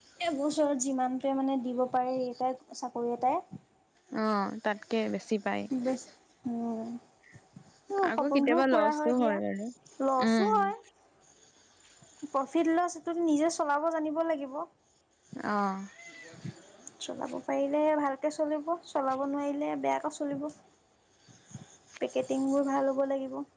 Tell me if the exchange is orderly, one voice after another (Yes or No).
No